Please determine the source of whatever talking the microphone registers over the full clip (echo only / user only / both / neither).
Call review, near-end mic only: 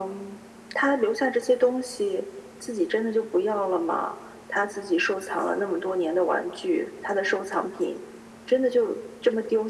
echo only